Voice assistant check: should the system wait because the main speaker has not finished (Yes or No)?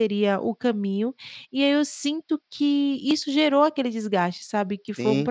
No